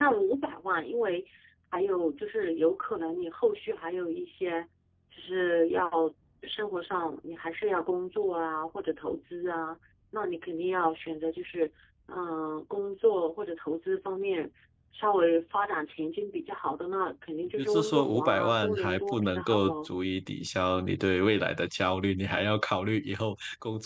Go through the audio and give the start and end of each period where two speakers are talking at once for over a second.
17.6-19.9

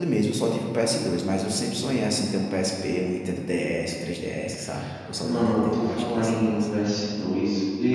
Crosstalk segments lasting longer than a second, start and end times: 5.2-6.6

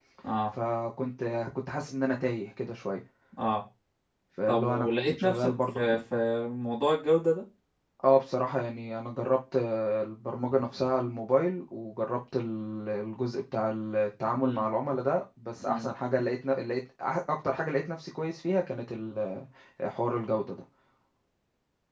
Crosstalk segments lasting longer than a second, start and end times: 4.5-6.0

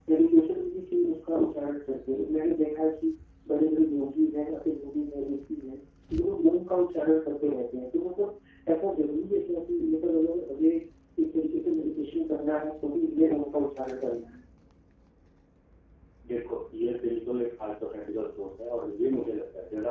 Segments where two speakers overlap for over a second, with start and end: none

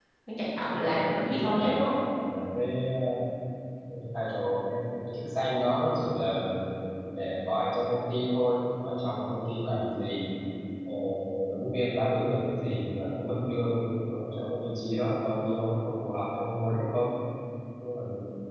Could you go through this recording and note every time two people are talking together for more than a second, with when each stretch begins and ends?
0.6-1.9

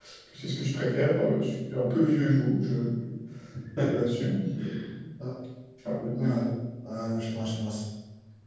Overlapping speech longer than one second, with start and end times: none

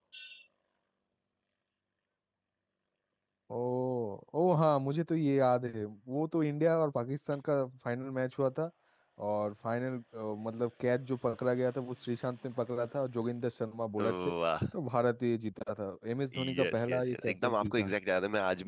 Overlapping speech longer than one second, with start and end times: 16.3-17.9

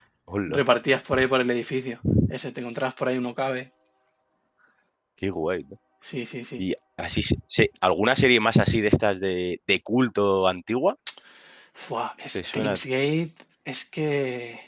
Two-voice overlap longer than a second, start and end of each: none

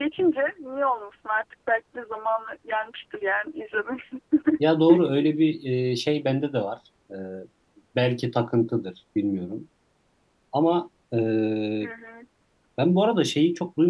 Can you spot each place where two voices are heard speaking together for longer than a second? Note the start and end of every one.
none

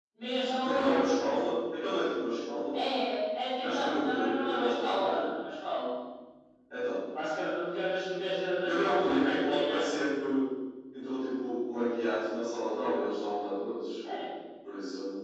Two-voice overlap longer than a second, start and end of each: 3.6-5.2, 8.6-9.9

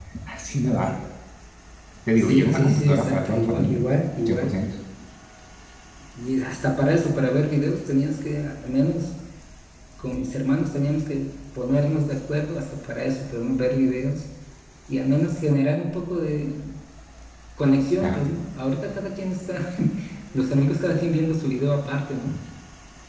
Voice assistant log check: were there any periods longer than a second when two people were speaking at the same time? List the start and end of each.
2.2-3.8

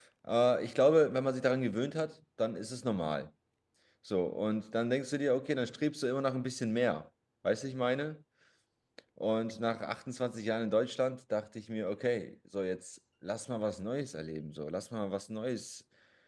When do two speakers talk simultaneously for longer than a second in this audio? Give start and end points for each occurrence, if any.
none

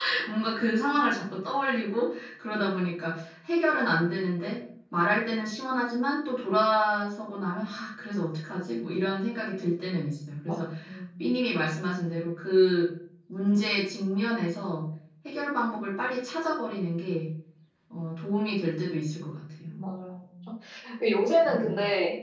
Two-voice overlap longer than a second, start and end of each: none

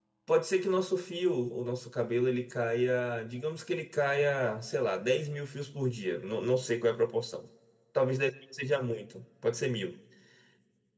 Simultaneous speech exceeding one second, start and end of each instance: none

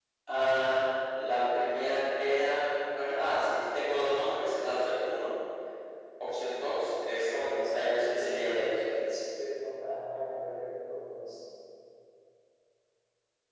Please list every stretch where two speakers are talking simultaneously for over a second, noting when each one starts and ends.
7.3-9.1

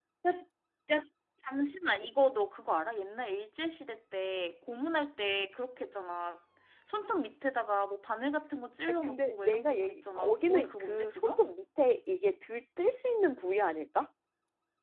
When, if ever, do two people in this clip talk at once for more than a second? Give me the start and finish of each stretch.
8.9-11.4

